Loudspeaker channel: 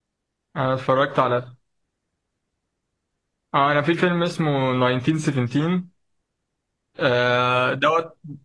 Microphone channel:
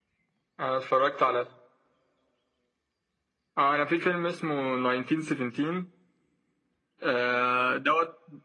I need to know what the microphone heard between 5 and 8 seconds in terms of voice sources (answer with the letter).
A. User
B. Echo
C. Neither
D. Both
B